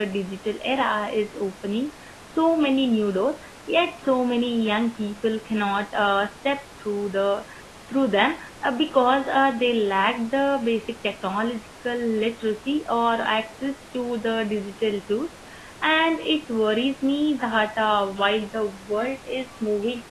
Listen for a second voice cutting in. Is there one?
No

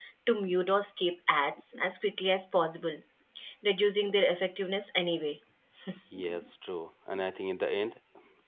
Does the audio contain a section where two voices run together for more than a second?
No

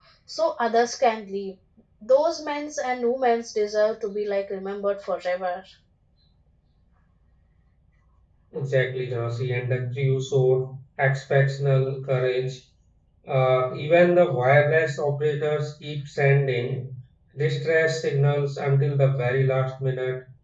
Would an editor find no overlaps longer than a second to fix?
Yes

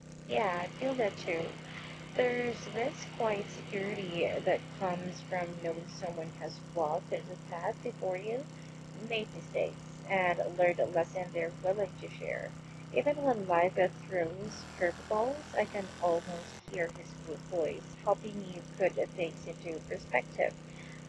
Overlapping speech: No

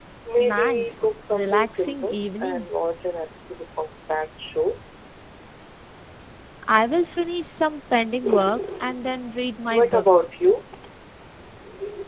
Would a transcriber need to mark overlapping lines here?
Yes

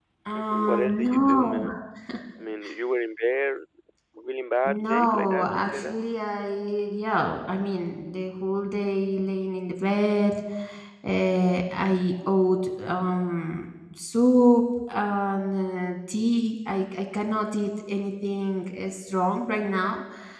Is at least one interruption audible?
Yes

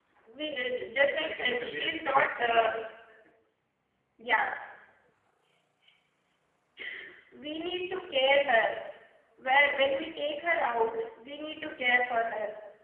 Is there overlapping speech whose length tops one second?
Yes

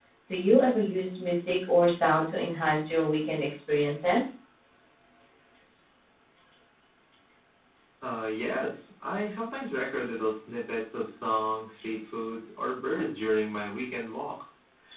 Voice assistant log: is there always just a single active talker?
Yes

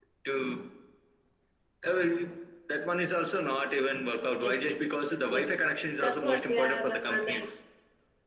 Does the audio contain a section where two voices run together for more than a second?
Yes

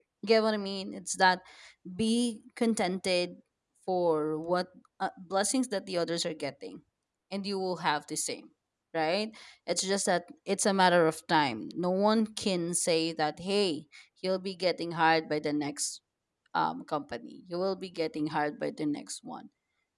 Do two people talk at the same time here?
No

